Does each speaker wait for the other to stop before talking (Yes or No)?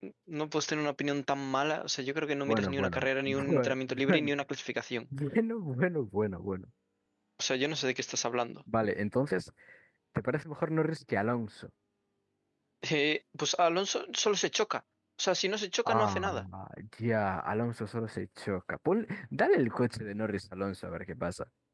No